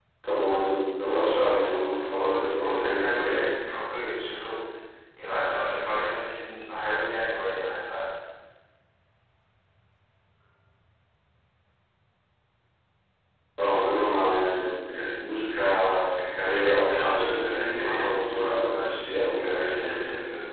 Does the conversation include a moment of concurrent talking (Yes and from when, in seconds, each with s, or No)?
Yes, from 1.1 s